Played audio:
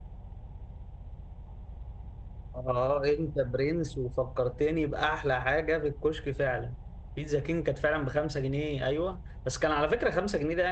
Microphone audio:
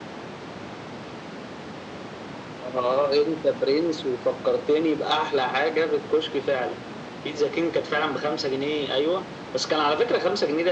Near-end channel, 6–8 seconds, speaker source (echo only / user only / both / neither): echo only